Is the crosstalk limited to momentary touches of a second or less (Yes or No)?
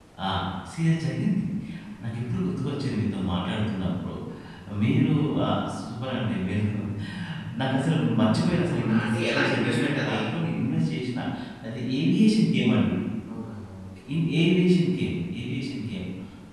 No